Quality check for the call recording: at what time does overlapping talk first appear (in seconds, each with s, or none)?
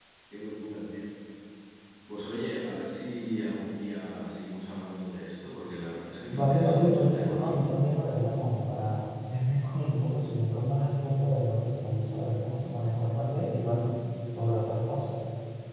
6.3 s